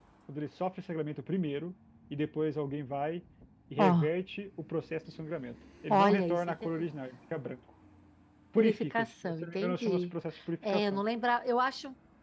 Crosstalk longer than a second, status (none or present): present